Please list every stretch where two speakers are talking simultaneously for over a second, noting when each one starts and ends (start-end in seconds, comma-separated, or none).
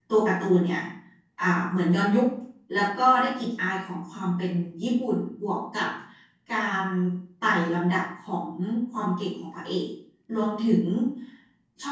none